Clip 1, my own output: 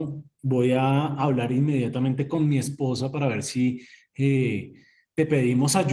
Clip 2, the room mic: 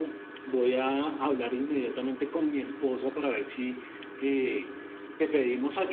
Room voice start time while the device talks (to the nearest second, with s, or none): none